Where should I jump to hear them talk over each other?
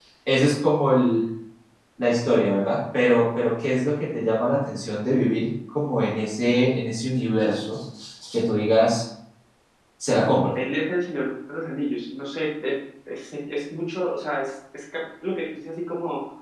none

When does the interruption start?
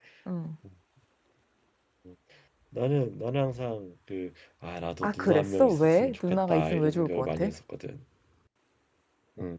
5.0 s

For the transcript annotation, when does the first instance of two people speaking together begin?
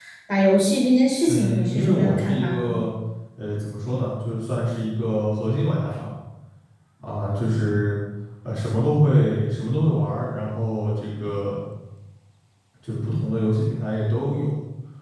1.2 s

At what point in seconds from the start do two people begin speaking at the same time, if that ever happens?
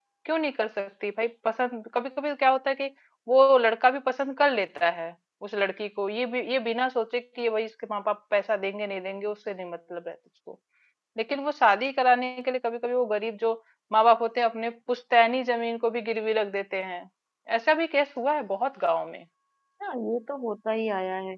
none

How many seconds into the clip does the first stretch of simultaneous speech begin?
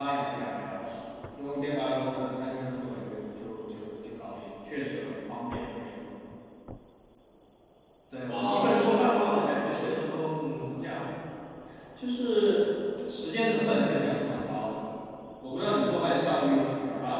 8.2 s

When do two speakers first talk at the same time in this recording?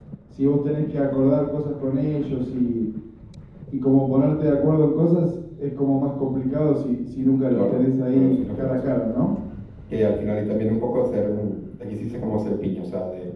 7.5 s

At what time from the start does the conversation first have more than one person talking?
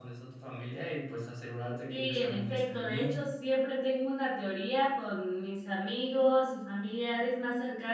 1.9 s

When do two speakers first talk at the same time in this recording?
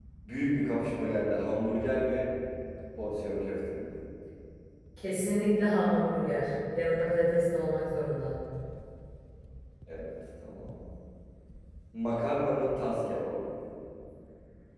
none

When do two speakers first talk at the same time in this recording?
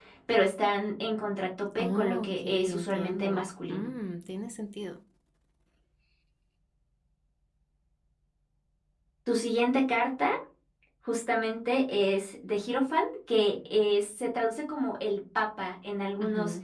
1.8 s

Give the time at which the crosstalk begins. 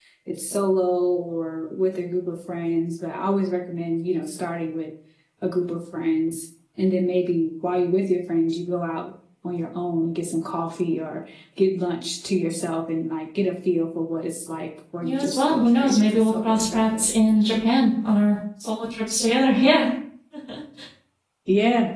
15.0 s

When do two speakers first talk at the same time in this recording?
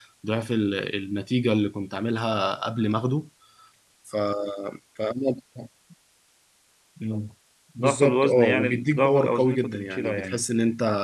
7.8 s

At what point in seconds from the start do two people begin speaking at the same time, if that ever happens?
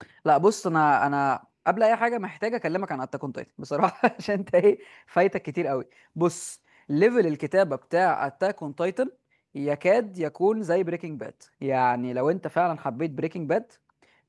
none

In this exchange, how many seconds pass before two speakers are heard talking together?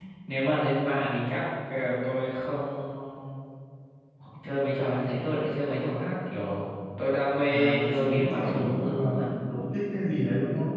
7.5 s

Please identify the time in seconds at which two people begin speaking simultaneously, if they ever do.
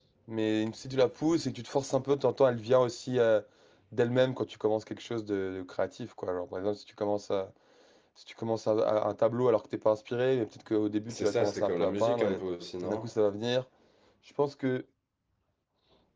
11.1 s

